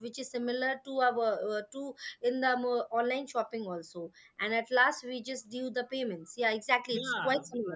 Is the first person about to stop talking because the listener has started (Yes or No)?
Yes